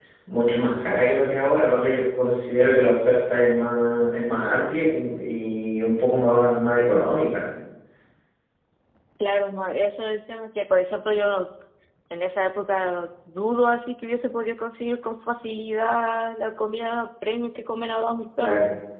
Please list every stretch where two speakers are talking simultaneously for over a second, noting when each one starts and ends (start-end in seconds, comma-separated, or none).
none